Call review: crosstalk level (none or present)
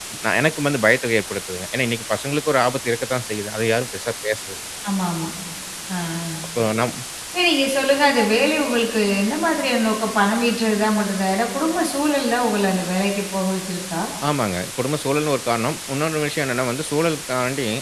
none